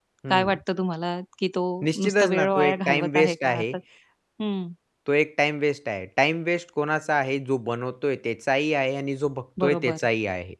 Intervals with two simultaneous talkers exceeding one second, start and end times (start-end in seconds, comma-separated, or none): 2.0-3.6